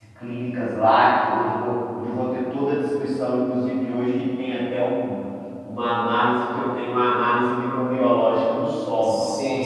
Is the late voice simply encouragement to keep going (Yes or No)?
Yes